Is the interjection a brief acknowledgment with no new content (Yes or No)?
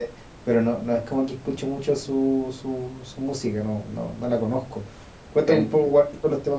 Yes